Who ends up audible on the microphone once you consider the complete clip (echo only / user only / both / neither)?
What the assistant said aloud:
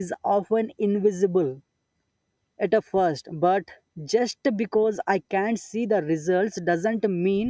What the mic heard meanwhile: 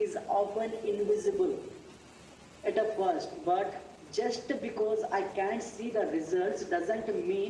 echo only